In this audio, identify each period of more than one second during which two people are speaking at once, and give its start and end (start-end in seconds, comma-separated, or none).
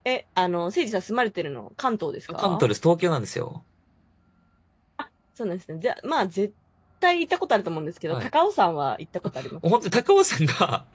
none